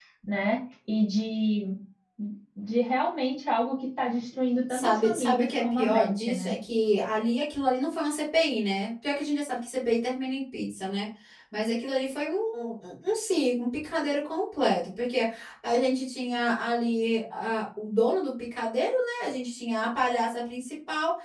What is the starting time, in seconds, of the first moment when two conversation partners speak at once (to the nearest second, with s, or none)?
5 s